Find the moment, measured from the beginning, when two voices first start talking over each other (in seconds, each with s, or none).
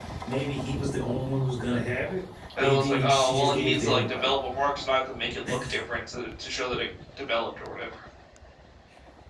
2.5 s